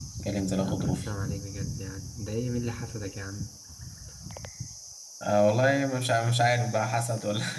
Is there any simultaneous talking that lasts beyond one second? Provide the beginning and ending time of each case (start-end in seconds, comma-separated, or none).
none